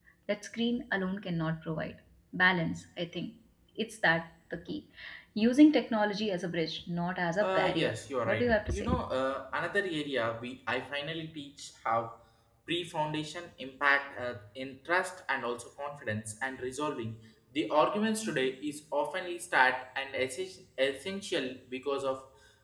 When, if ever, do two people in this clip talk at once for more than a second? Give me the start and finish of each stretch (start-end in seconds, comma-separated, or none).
7.4-8.9